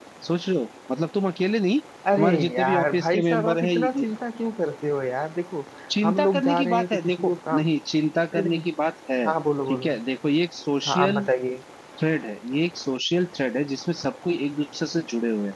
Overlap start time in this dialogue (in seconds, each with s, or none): 2.2 s